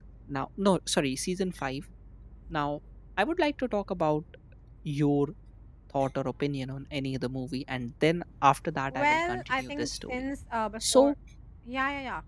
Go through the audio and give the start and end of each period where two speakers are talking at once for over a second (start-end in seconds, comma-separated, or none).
8.9-10.2